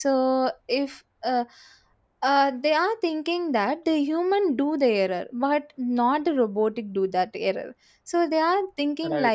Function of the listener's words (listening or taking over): listening